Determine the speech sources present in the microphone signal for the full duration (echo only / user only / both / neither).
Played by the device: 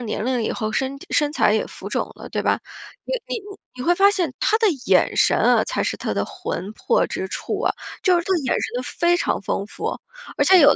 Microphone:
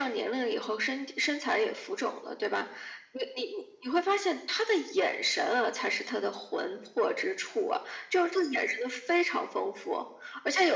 echo only